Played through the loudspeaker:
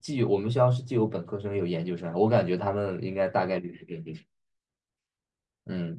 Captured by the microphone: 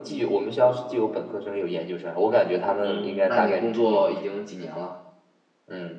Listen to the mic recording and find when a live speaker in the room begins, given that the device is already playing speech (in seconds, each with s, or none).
2.8 s